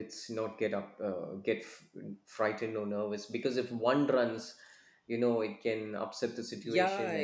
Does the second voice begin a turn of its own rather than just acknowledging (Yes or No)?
Yes